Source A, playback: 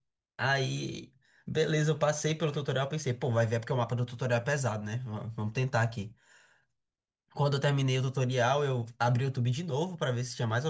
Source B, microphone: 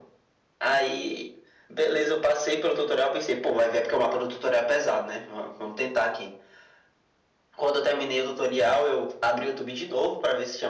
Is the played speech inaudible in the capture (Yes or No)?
No